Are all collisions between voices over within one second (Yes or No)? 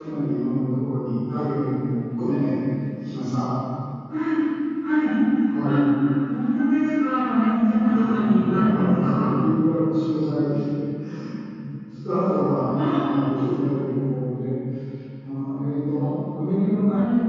No